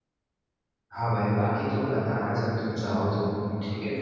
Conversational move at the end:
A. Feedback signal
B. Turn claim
B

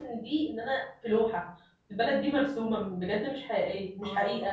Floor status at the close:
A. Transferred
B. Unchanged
A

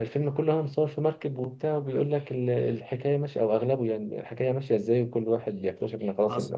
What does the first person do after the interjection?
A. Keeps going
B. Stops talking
A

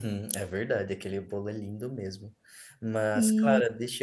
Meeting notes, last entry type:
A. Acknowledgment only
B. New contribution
A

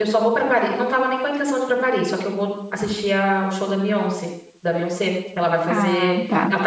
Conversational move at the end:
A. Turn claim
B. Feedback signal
B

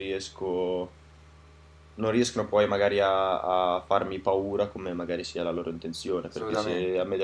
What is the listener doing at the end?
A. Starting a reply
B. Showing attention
B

